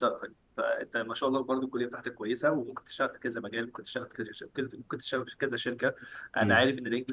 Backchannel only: Yes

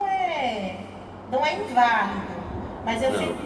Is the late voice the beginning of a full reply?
No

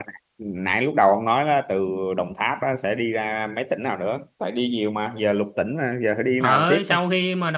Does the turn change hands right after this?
Yes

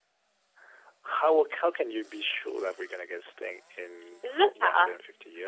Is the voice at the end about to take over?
Yes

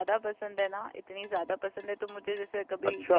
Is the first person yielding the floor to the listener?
No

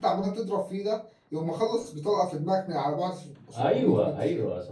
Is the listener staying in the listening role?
No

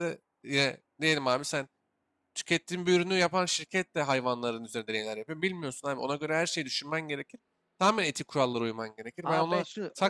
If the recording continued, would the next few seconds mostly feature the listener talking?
Yes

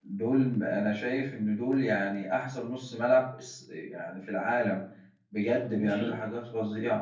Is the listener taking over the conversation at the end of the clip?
No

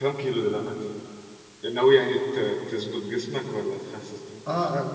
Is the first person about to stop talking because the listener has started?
Yes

